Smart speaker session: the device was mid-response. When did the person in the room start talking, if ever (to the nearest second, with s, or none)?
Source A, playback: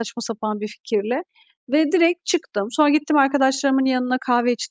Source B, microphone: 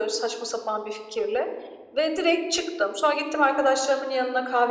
none